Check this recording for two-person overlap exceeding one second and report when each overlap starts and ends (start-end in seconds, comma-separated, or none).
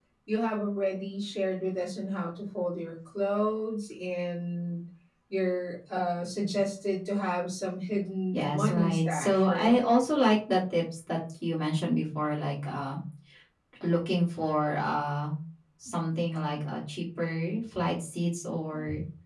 8.3-9.8